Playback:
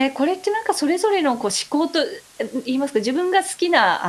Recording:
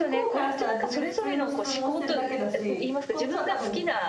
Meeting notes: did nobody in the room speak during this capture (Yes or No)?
No